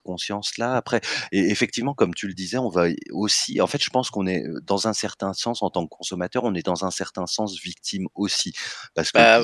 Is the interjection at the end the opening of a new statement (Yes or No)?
Yes